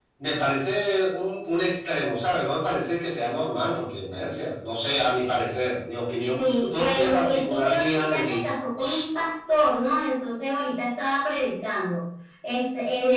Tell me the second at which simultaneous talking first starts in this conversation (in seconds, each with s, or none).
6.4 s